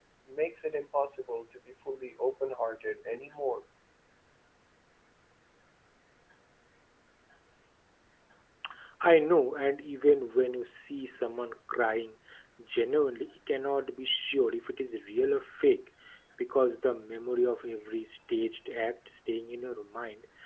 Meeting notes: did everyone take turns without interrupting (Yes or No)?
Yes